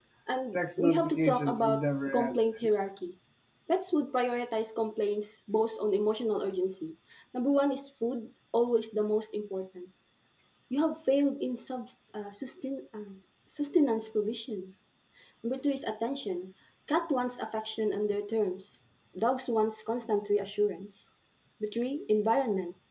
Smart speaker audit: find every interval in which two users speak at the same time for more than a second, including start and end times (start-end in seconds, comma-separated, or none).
0.5-2.4